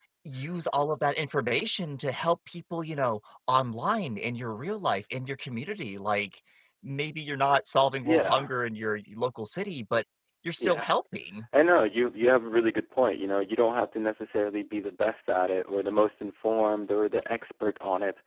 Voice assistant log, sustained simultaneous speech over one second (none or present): none